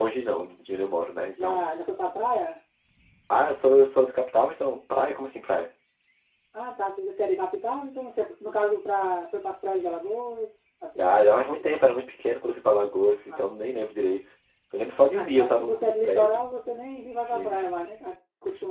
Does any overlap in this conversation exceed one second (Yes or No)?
Yes